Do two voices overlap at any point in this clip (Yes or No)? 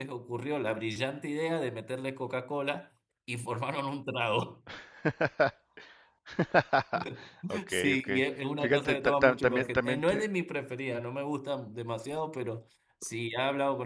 Yes